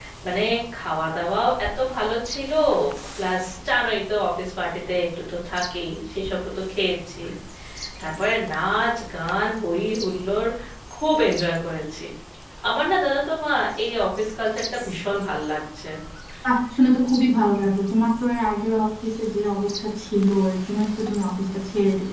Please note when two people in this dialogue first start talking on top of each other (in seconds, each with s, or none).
none